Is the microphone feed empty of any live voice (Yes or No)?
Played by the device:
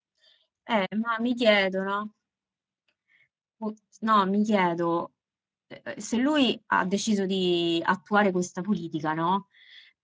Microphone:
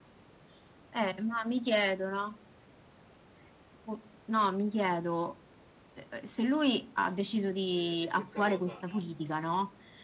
No